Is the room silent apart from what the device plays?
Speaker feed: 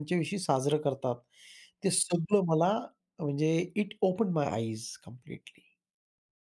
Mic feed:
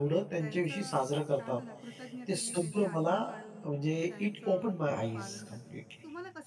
No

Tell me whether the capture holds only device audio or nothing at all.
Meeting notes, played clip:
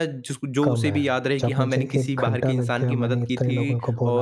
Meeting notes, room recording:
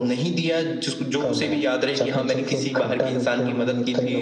Yes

